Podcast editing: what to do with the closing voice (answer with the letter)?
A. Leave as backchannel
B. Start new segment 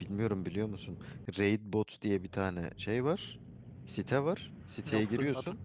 A